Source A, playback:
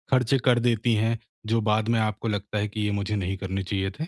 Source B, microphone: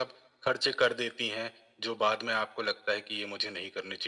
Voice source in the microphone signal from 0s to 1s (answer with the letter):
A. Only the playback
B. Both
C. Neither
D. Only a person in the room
A